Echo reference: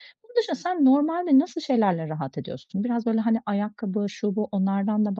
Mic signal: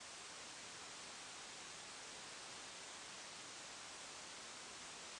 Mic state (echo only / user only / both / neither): neither